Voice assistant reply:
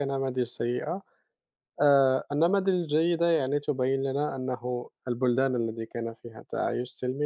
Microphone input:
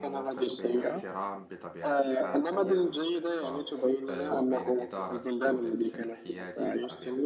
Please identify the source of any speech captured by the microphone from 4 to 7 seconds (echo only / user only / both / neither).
both